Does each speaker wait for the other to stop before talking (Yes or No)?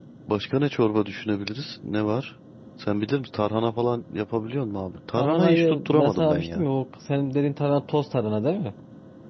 No